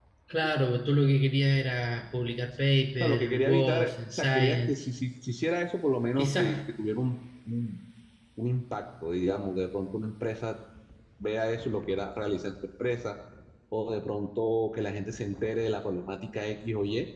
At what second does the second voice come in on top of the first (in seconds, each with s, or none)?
3.0 s